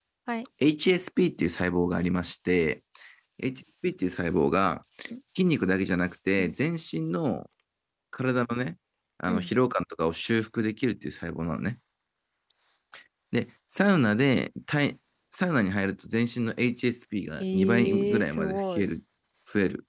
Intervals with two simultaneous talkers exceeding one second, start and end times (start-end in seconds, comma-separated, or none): 17.4-18.9